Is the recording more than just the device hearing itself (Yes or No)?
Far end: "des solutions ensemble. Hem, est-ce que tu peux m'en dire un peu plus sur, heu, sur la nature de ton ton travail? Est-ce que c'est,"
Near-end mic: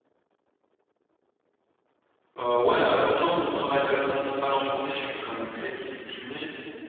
Yes